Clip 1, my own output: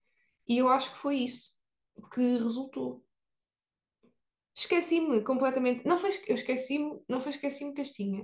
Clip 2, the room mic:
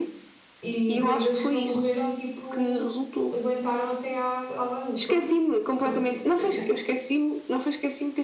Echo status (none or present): present